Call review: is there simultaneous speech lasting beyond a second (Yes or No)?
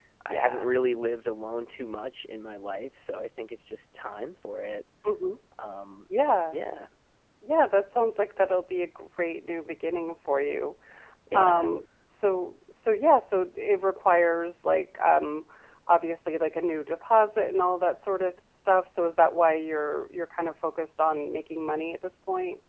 No